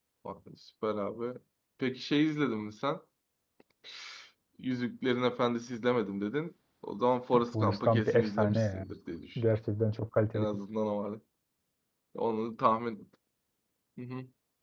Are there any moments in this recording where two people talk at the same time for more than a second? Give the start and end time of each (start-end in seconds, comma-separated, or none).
7.3-8.9